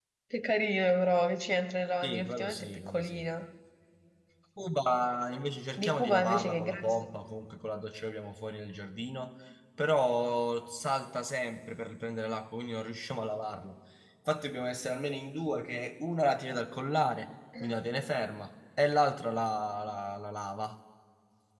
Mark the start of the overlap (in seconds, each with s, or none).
2.0 s